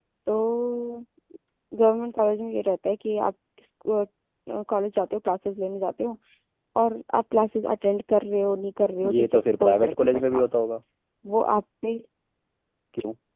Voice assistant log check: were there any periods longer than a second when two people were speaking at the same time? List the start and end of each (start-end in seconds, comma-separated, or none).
9.1-10.4